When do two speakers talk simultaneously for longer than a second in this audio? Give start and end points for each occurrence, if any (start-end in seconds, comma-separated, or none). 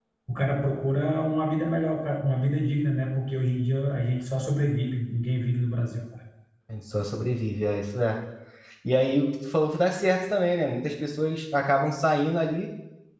none